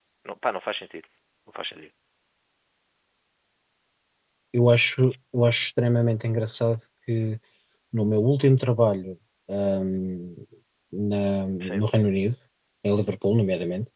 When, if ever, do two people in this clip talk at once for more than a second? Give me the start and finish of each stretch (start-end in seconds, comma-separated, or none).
none